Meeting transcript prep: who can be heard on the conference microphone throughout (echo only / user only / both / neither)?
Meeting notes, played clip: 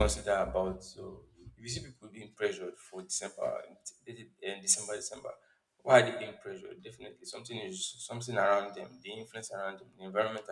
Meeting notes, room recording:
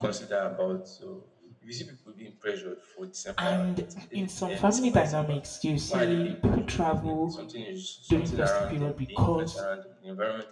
both